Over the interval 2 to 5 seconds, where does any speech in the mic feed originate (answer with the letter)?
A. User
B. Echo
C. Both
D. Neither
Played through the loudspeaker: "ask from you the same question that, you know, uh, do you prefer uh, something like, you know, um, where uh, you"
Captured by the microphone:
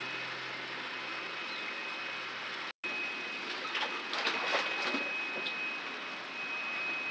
D